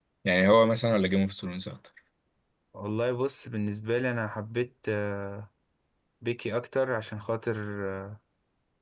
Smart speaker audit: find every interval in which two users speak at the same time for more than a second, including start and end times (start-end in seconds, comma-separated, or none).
none